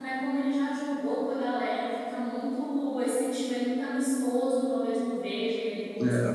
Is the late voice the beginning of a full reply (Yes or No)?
Yes